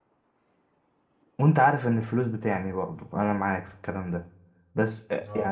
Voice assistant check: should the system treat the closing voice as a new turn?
Yes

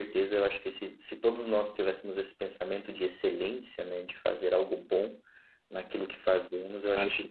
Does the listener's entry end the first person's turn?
No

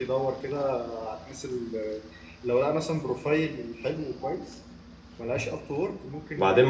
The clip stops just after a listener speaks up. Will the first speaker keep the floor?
No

